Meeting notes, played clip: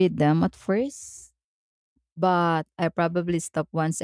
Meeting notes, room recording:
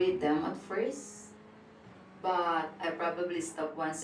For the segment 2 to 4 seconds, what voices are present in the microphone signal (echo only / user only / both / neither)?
echo only